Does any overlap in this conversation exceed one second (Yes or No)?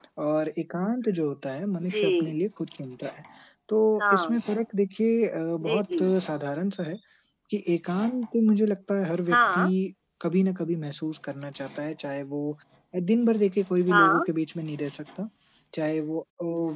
No